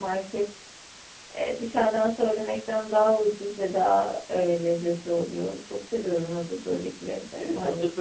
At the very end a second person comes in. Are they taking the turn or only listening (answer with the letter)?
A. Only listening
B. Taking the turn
B